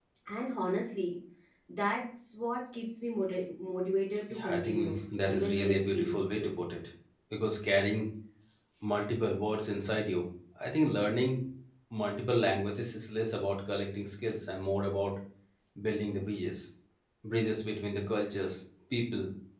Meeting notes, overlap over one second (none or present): present